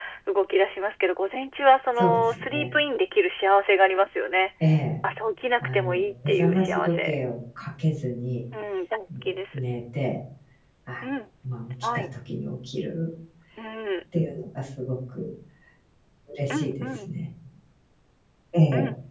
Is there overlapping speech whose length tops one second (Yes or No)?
Yes